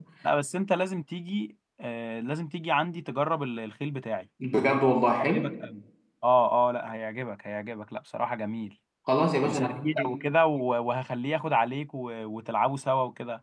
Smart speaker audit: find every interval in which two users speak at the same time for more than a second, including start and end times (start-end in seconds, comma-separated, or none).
none